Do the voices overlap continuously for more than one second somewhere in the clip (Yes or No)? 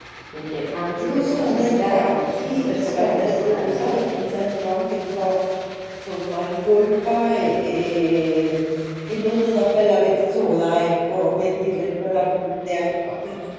Yes